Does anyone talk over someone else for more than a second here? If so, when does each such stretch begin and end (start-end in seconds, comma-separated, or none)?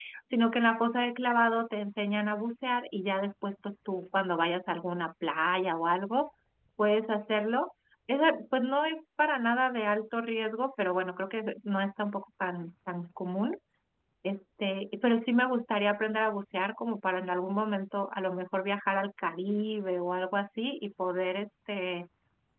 none